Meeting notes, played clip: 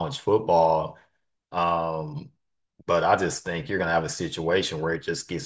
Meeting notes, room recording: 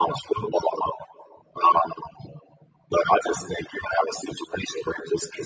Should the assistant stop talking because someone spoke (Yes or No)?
No